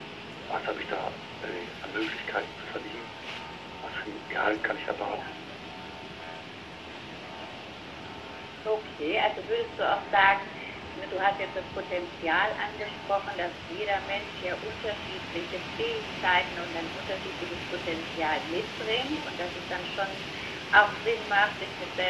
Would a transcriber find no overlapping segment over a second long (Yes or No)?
Yes